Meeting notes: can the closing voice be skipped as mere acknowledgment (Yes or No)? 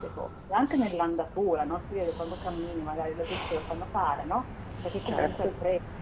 Yes